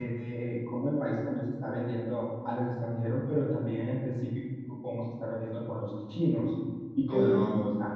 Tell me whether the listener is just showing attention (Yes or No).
Yes